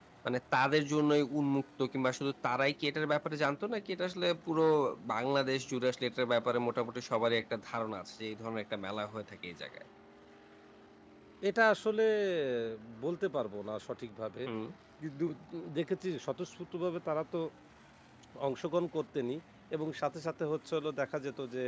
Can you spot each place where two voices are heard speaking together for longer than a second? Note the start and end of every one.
none

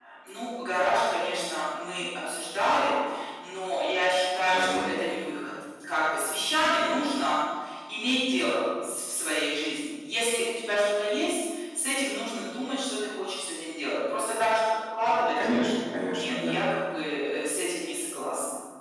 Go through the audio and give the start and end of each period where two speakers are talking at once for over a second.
none

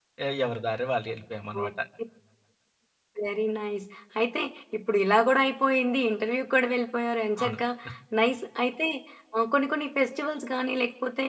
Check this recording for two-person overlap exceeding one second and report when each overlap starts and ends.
none

